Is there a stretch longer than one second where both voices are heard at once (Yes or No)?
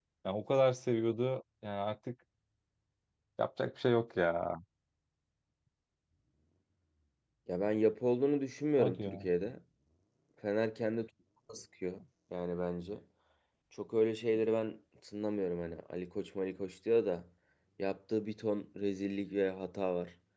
No